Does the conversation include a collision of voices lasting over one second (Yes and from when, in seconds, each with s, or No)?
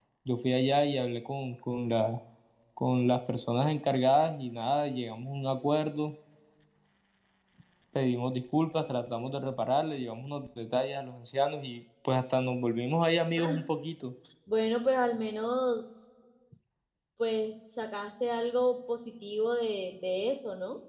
No